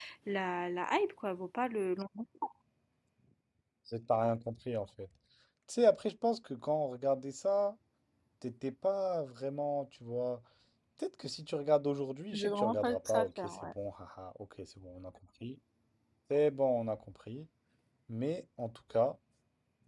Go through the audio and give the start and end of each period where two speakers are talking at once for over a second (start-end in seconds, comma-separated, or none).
12.3-13.7